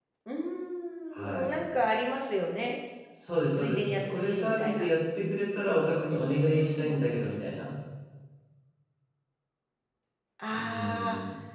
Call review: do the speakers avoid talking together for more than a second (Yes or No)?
No